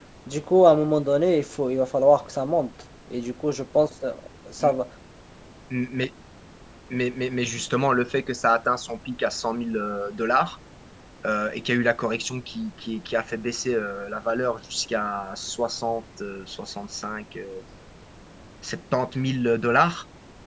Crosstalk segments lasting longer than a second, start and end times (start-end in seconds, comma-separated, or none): none